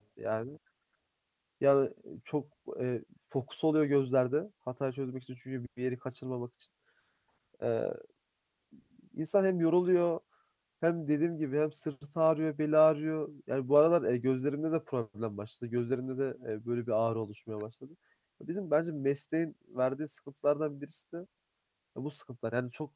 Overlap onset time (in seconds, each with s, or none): none